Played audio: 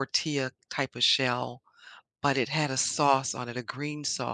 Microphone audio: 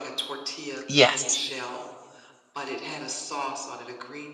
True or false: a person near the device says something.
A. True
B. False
A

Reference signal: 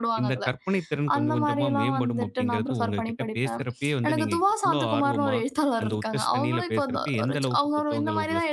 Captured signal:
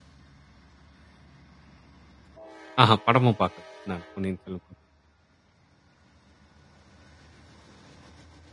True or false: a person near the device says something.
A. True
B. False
A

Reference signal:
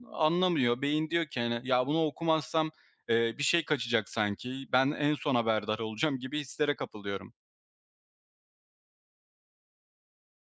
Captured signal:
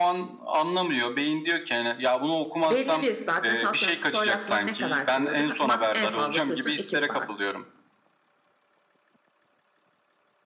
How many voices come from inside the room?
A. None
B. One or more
B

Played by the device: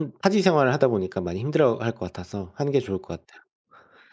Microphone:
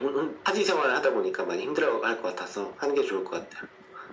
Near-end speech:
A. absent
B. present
A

